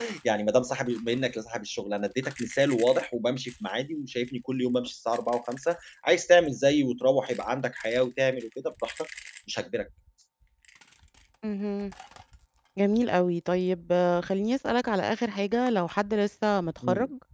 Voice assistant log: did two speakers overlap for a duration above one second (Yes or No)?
No